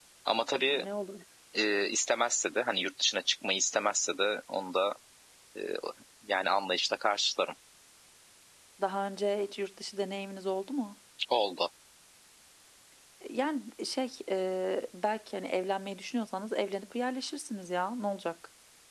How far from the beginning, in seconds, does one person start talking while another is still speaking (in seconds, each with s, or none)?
none